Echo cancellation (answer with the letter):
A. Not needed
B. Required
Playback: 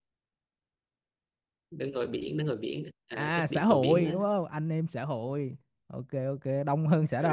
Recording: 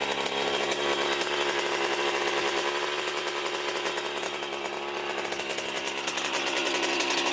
A